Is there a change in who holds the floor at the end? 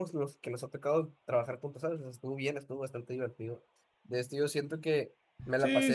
No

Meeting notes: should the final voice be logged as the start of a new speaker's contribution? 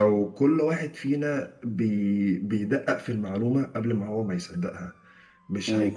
No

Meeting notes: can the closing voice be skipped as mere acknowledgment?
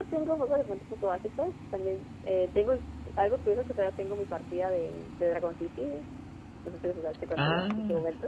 No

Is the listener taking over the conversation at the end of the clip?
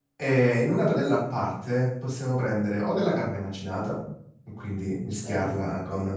No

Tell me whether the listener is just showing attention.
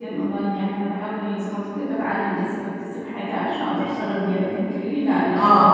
Yes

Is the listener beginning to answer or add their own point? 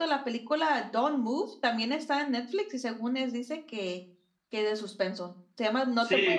Yes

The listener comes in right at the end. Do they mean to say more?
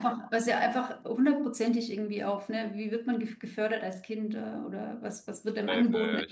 Yes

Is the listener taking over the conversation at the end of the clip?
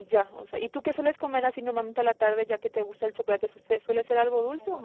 Yes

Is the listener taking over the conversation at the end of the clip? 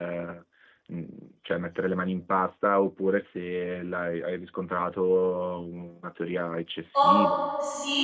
Yes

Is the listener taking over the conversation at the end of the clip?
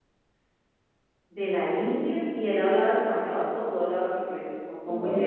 Yes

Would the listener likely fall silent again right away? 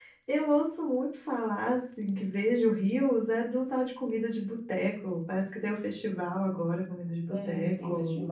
No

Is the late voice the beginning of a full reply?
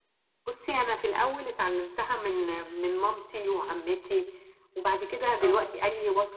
No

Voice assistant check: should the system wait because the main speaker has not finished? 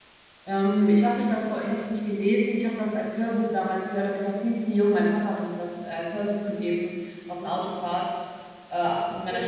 Yes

